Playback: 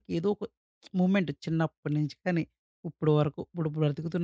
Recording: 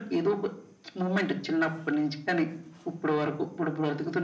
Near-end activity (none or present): none